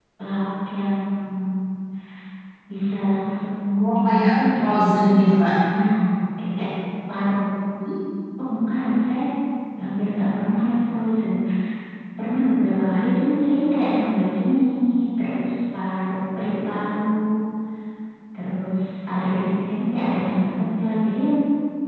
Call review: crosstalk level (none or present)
present